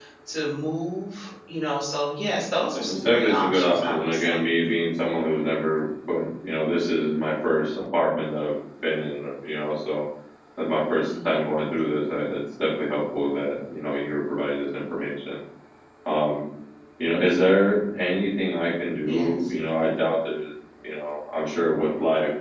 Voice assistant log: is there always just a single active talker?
No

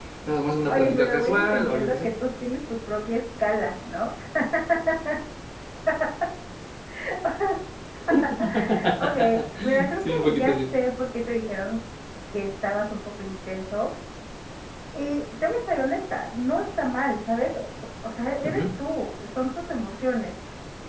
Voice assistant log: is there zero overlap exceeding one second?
No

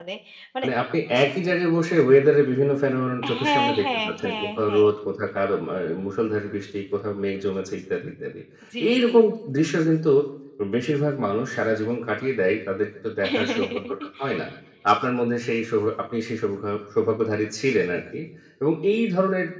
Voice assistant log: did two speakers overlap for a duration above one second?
Yes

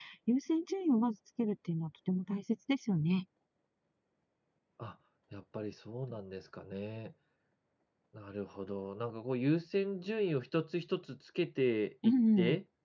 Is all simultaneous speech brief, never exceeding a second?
Yes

